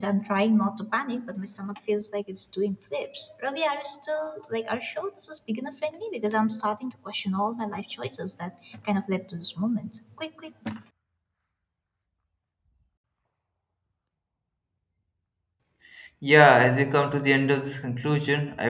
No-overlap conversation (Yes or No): Yes